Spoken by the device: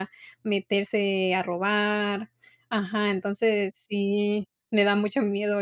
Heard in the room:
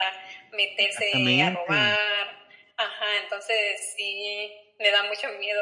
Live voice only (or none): Exactamente.